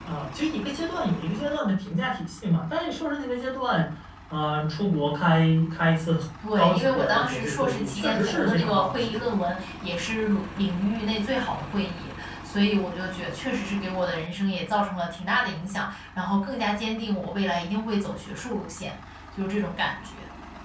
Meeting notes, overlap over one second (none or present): present